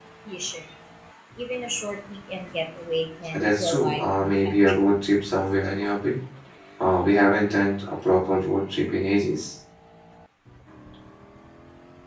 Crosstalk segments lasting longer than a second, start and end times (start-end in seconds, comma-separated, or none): 3.3-4.8